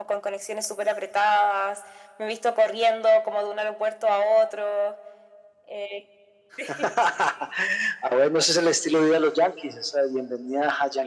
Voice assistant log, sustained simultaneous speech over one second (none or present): none